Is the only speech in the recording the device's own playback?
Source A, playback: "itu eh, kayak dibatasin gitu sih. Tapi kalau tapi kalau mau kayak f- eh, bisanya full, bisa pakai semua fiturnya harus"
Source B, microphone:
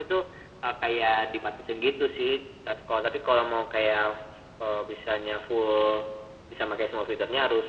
Yes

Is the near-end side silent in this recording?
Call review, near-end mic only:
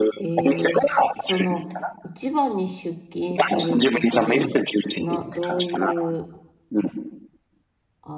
No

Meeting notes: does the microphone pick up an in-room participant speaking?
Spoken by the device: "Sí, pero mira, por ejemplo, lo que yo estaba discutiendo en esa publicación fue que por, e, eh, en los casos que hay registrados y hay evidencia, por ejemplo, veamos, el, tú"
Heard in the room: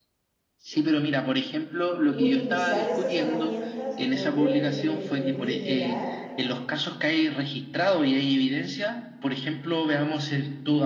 Yes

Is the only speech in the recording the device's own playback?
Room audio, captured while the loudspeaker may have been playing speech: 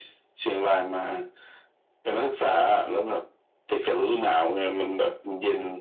Yes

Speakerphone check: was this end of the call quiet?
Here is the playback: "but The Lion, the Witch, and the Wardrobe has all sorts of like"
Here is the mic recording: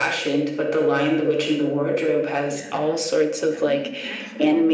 No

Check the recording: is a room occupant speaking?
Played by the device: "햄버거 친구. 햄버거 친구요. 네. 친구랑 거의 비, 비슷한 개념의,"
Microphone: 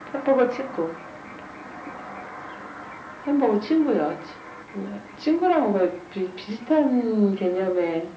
No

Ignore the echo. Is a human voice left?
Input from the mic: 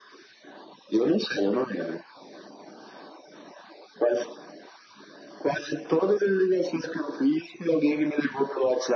No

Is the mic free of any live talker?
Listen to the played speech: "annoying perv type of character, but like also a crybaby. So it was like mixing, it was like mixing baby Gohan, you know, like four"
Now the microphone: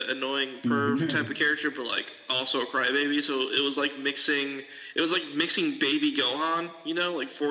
No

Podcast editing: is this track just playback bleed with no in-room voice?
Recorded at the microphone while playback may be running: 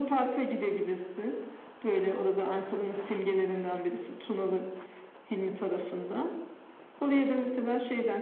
Yes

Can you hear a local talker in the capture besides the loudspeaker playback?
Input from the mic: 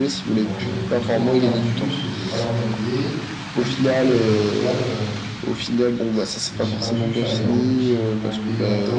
Yes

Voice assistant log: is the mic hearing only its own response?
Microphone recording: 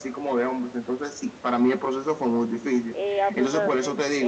No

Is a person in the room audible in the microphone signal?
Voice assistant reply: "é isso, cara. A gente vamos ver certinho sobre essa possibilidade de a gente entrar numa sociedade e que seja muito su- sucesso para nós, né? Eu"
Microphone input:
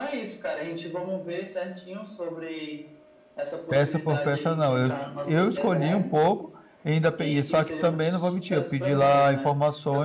Yes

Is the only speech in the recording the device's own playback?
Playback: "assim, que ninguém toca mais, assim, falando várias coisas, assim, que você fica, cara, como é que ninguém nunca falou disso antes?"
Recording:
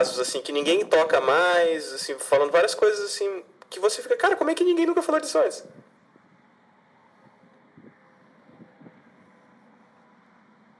Yes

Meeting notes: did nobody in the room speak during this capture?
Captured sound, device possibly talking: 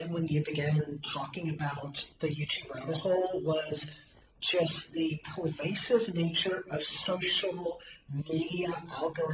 Yes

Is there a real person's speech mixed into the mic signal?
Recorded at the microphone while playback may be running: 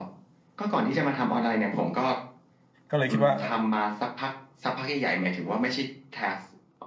Yes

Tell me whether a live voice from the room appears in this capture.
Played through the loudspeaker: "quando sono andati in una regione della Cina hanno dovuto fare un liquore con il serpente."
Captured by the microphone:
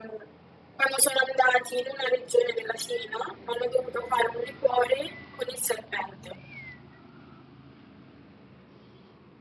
No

